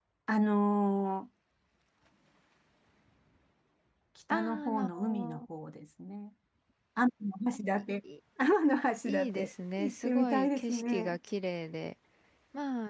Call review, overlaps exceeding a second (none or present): present